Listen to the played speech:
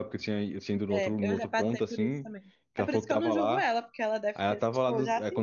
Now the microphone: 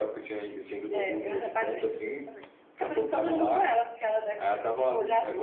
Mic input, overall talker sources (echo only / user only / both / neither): echo only